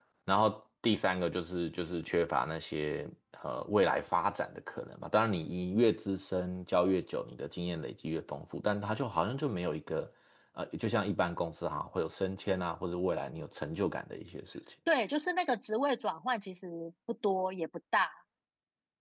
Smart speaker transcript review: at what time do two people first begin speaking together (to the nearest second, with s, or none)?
none